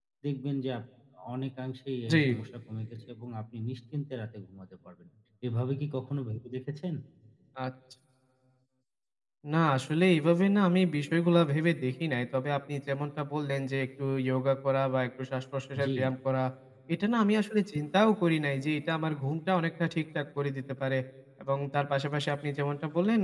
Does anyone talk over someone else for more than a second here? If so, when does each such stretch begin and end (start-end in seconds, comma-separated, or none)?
none